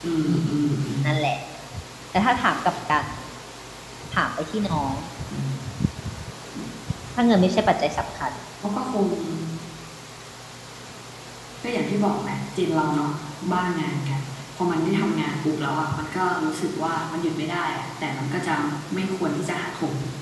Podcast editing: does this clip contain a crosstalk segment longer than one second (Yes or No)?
No